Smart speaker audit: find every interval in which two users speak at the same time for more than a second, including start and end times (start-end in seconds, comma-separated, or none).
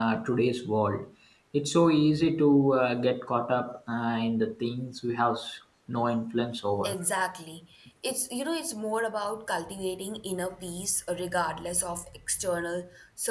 none